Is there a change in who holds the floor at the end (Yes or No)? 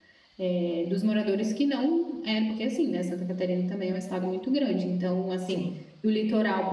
No